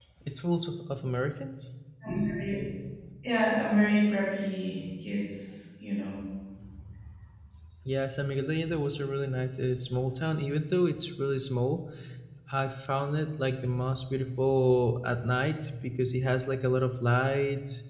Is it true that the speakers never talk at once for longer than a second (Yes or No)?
Yes